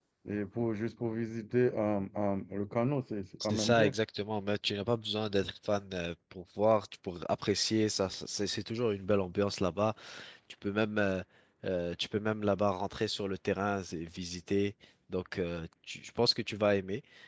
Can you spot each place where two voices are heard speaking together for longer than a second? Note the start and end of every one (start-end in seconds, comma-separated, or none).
none